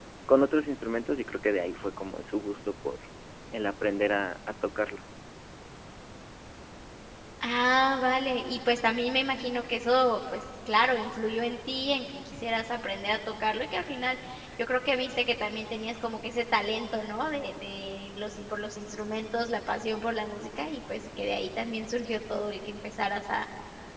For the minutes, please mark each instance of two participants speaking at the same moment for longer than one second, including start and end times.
none

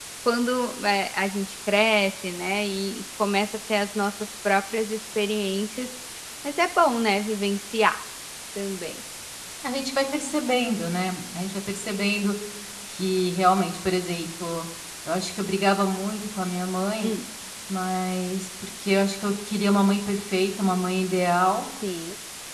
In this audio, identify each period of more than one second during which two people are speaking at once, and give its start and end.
none

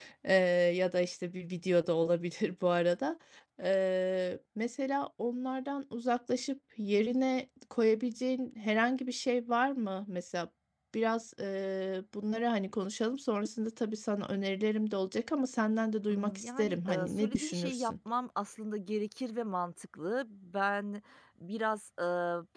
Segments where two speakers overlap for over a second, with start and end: 16.1-17.9

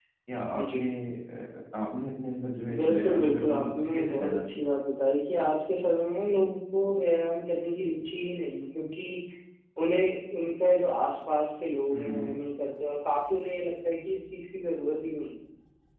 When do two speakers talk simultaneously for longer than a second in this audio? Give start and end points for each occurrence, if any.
2.8-4.6

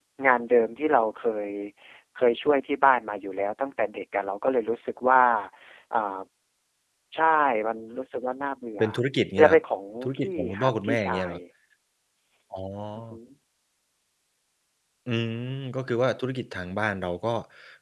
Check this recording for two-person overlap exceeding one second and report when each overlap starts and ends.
10.0-11.3

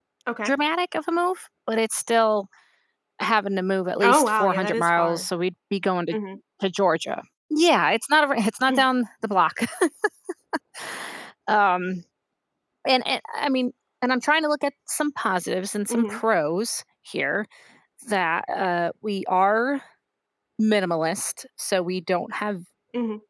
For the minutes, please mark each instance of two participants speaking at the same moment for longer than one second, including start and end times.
4.0-5.2

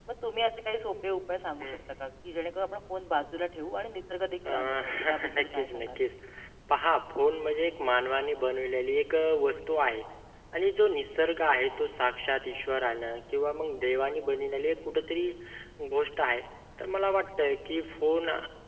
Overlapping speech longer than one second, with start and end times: 4.5-6.0

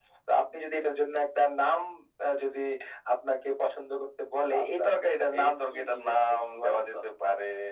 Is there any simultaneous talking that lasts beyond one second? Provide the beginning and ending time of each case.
5.4-6.8

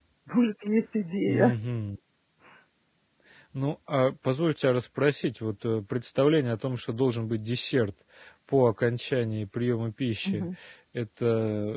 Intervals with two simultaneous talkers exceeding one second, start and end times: none

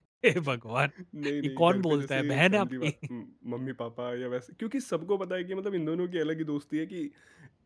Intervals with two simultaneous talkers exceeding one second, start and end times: 1.4-2.9

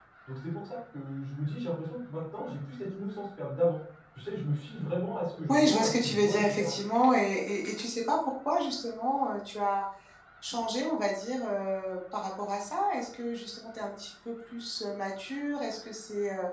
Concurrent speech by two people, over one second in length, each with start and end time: 5.5-6.7

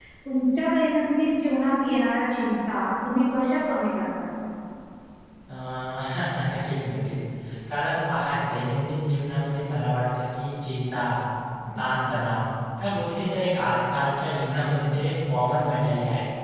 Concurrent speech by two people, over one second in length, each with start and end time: none

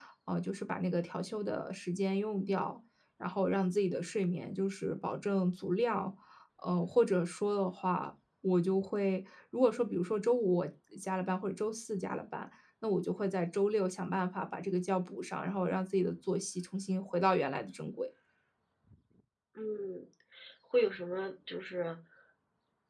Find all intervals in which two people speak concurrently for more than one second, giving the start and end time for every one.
none

